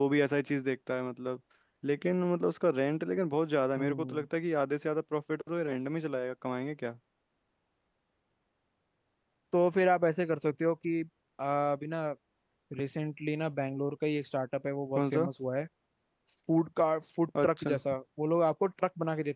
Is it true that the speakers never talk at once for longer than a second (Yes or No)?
Yes